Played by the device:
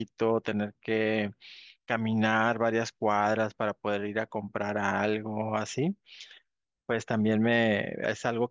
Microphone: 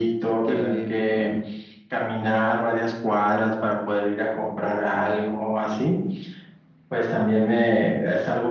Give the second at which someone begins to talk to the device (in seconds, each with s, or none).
0.4 s